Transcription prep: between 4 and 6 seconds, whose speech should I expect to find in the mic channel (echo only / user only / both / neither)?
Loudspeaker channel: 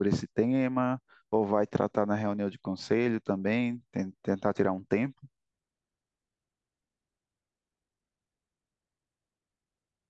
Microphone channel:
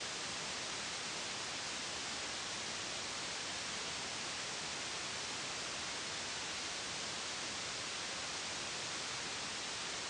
neither